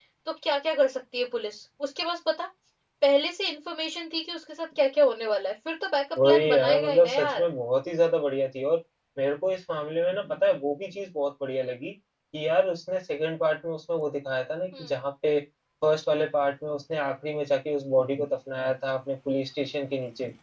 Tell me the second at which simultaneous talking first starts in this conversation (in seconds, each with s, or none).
6.2 s